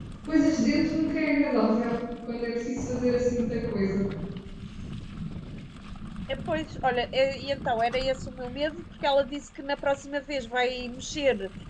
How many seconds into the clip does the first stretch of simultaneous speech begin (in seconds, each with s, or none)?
none